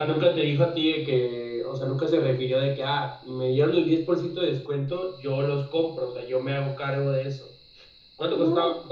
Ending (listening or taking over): listening